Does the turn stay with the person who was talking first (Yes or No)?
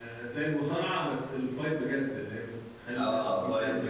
No